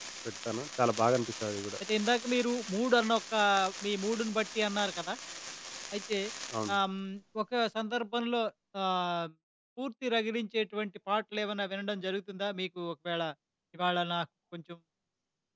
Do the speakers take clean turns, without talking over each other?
Yes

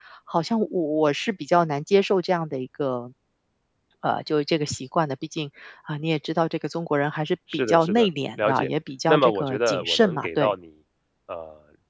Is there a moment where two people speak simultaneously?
Yes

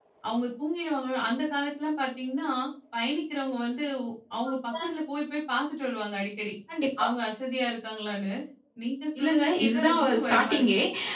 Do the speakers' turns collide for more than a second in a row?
Yes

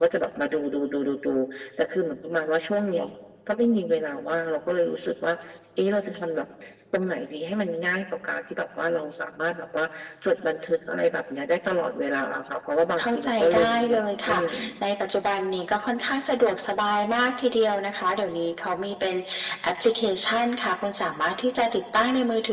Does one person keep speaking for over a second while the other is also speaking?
Yes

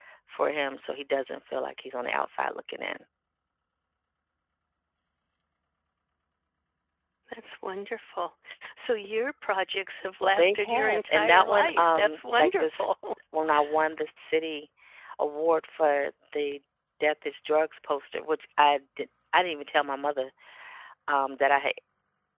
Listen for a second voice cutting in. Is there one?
Yes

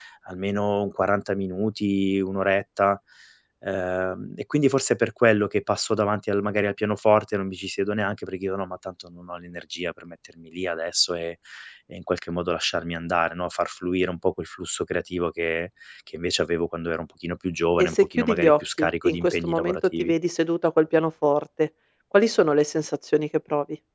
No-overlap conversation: No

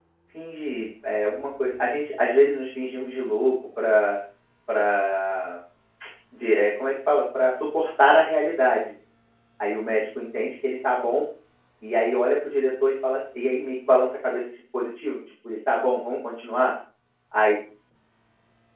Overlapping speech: No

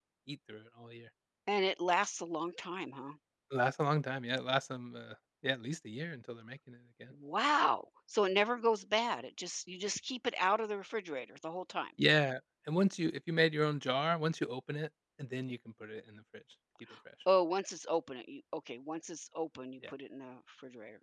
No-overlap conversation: Yes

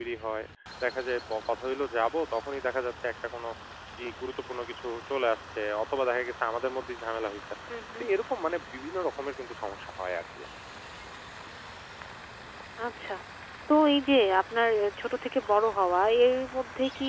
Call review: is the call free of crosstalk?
Yes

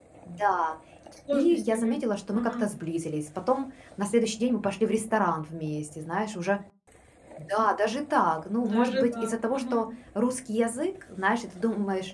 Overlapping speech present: Yes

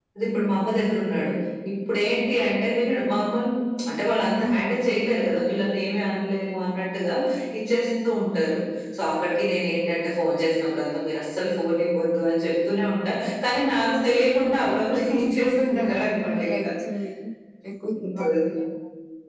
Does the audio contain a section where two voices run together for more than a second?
Yes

